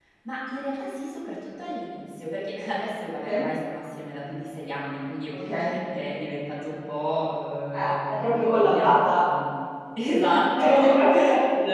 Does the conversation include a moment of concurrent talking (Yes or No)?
Yes